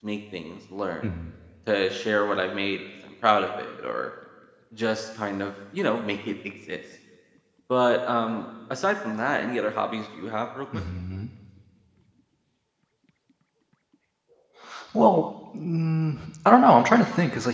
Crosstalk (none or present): none